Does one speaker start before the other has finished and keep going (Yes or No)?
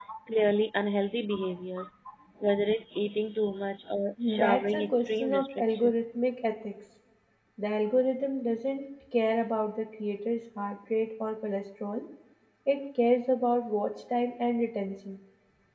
Yes